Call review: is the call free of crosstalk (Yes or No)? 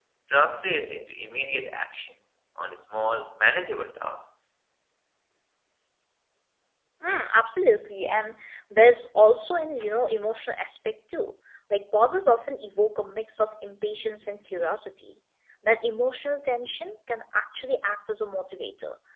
Yes